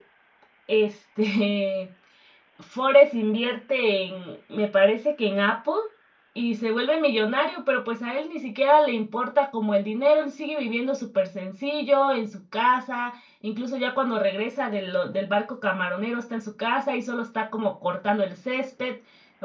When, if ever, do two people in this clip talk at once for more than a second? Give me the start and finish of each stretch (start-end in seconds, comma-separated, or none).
none